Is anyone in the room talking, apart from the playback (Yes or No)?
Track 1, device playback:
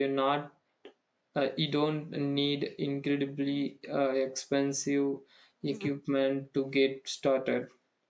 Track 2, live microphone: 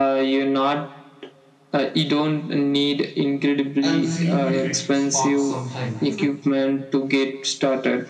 Yes